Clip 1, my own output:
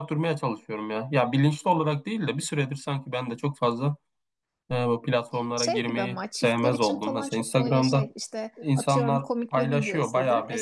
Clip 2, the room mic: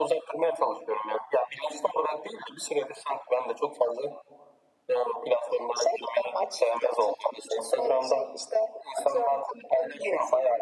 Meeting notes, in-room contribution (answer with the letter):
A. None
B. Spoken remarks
A